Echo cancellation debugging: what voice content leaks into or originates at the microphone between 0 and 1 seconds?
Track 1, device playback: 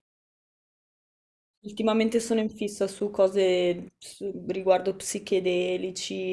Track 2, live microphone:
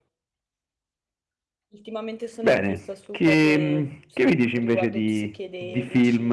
neither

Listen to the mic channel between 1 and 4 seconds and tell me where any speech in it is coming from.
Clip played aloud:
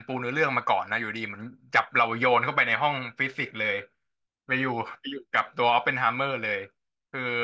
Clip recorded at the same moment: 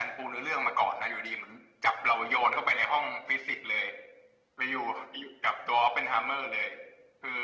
echo only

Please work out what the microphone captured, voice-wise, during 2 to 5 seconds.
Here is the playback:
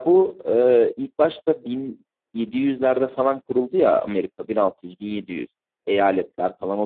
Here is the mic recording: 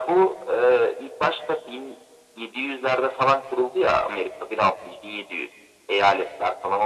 echo only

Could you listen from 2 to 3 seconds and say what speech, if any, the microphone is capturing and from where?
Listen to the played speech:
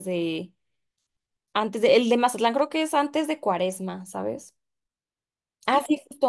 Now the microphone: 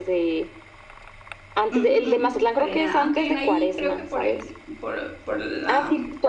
both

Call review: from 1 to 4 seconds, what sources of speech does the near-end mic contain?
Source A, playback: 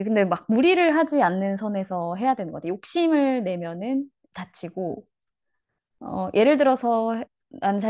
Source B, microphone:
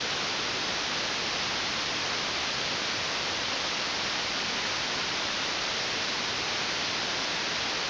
neither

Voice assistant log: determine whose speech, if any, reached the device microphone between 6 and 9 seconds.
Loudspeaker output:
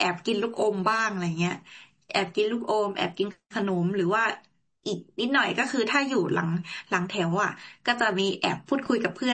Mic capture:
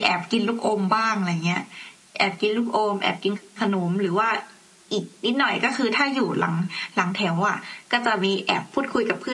echo only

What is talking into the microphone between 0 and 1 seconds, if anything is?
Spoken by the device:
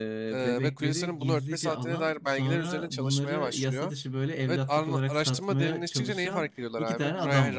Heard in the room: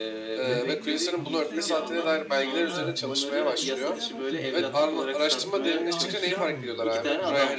both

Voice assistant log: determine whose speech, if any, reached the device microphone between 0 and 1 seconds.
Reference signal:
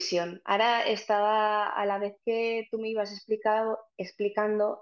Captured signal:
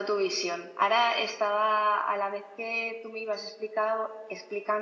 echo only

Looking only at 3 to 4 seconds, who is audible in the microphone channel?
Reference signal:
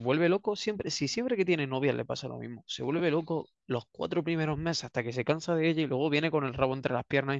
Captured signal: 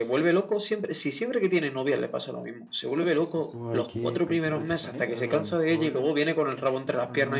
both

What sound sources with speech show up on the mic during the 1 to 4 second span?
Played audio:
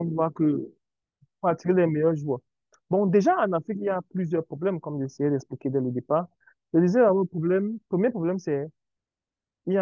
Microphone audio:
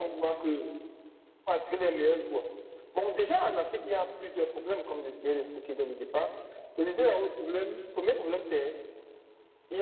echo only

